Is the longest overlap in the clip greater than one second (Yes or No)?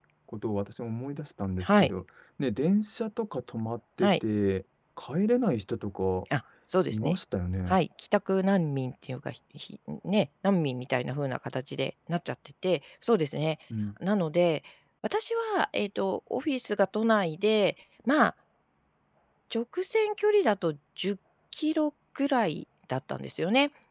No